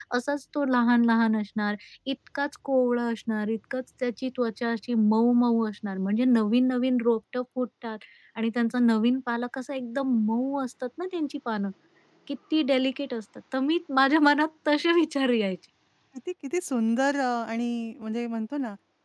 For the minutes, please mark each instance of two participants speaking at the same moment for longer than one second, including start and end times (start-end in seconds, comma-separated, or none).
none